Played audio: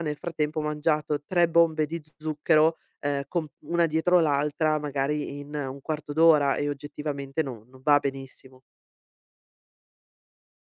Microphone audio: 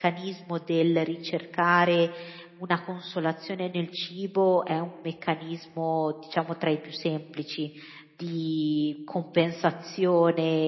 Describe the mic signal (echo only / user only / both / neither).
user only